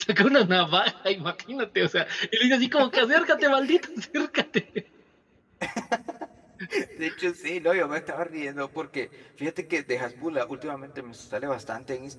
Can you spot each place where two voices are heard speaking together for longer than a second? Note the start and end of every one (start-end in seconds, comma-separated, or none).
none